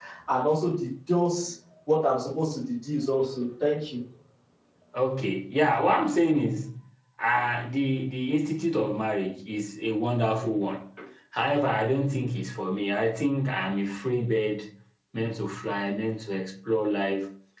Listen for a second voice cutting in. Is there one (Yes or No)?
No